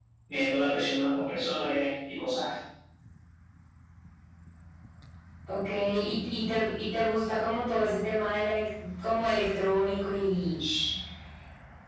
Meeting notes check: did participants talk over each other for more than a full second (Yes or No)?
No